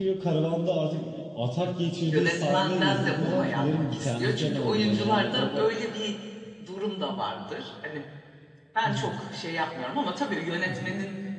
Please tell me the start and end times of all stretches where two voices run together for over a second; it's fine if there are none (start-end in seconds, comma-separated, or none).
2.0-5.7